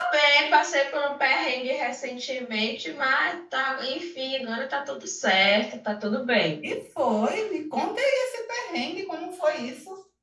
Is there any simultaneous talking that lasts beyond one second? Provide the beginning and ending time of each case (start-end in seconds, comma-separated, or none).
none